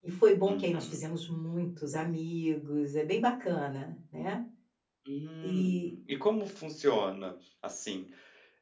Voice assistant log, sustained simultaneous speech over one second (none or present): none